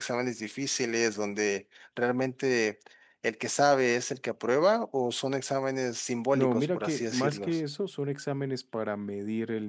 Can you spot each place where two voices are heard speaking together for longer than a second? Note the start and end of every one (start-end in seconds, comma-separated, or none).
6.3-7.6